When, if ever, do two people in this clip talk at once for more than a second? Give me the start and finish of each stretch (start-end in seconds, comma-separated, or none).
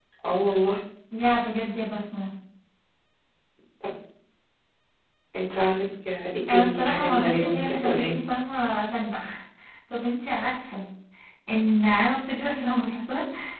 6.5-8.1